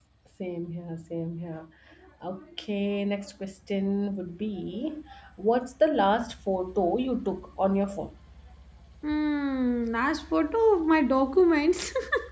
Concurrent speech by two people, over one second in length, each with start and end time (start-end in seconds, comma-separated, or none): none